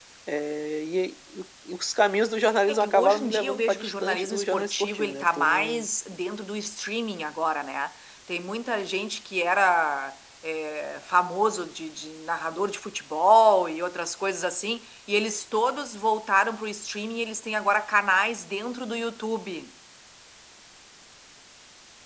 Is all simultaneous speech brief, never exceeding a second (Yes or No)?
No